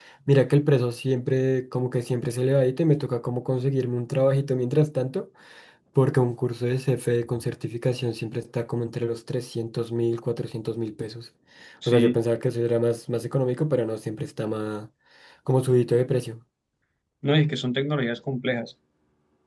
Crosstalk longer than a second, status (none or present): none